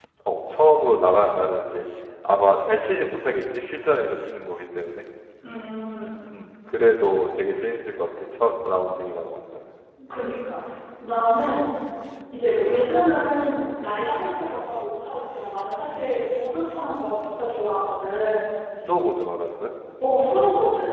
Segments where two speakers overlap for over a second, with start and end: none

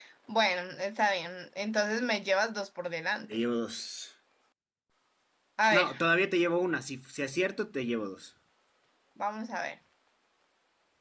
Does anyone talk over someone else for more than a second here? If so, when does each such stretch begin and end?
none

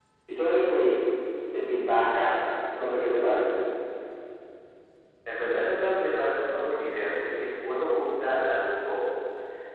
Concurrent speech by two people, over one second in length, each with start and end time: none

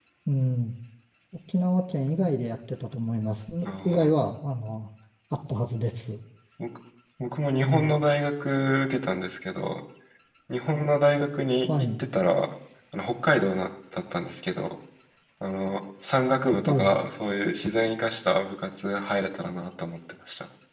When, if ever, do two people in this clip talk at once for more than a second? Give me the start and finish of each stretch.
none

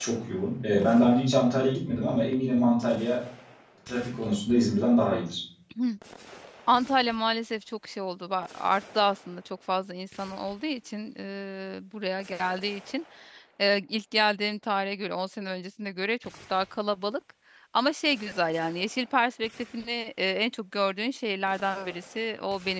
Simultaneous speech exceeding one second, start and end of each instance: none

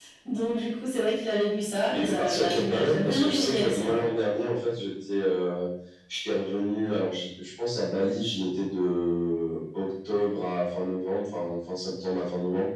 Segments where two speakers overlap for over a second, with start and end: 1.9-4.0

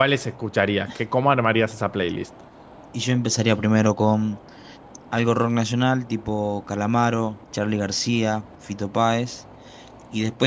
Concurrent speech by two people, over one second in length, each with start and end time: none

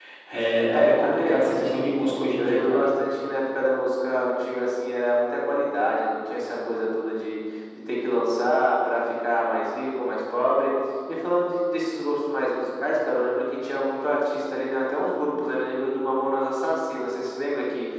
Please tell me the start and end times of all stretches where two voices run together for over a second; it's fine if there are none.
0.7-1.9

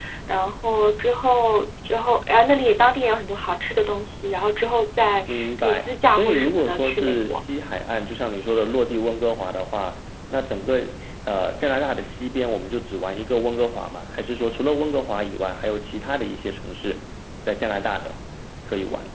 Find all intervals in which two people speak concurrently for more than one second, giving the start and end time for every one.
5.3-7.4

